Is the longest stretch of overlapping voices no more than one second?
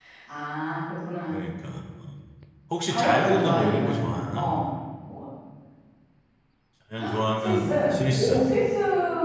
No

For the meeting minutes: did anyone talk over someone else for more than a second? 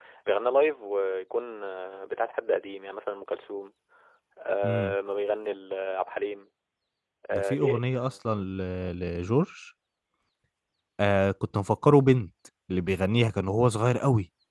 No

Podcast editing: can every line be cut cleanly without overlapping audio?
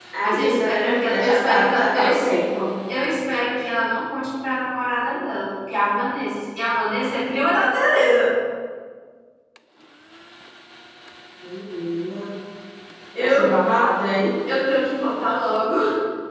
No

